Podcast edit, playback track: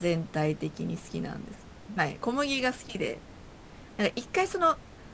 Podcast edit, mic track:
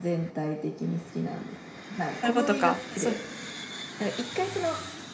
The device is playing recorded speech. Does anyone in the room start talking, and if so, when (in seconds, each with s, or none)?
2.2 s